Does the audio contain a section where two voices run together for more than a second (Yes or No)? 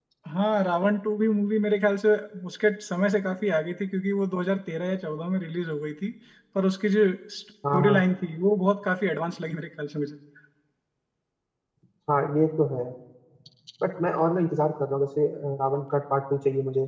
No